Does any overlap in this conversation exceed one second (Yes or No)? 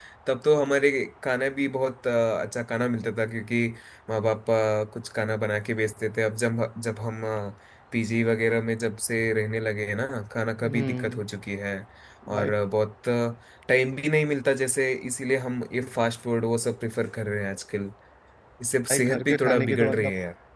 Yes